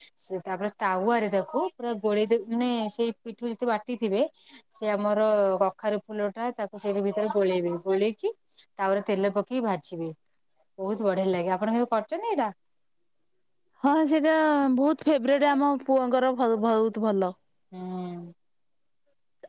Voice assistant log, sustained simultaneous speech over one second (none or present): none